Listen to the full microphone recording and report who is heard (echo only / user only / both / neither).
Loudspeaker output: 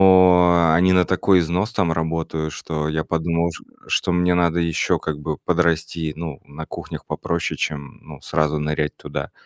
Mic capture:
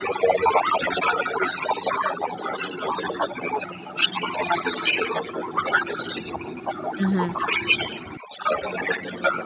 both